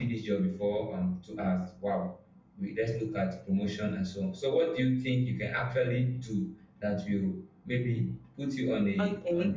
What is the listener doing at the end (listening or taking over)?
taking over